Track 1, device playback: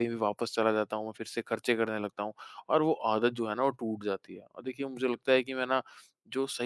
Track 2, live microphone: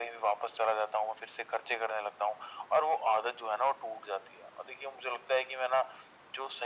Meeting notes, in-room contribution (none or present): none